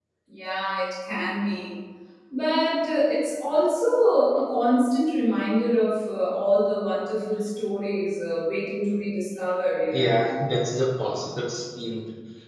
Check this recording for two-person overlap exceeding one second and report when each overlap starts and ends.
none

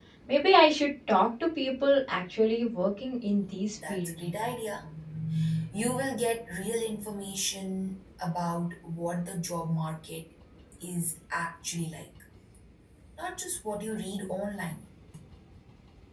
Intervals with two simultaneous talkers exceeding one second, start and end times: none

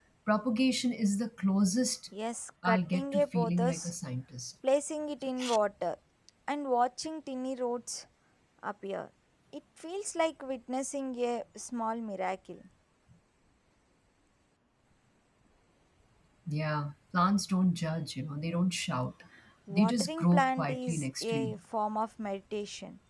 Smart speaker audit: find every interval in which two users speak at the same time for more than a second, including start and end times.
2.6-3.9, 19.7-21.5

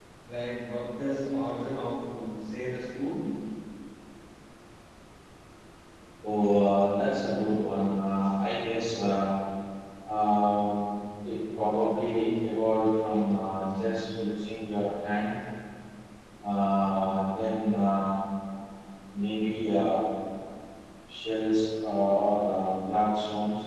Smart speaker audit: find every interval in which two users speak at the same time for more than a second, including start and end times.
none

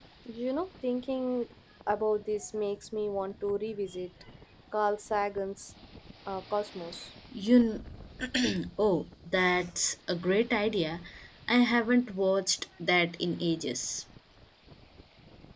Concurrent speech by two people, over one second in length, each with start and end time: none

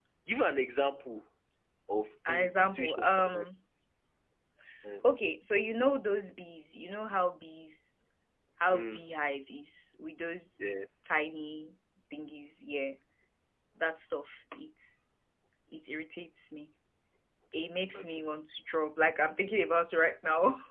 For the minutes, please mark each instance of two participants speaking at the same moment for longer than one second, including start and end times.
2.3-3.5

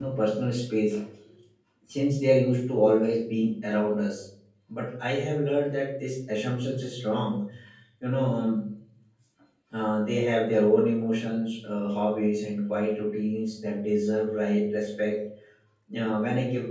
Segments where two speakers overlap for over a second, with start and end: none

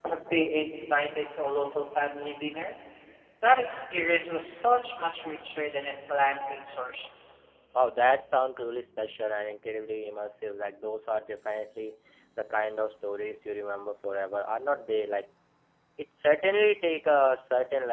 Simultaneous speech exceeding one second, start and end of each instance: none

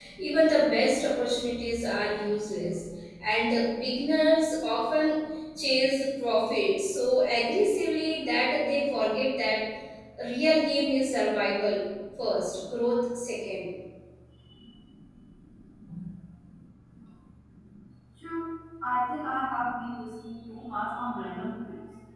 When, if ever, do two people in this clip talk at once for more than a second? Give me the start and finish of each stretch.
none

